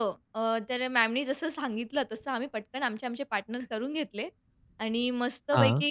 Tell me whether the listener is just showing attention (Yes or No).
Yes